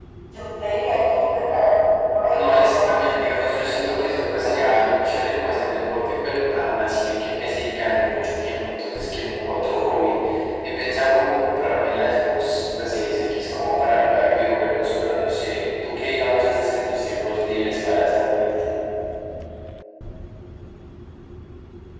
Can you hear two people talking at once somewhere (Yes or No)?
Yes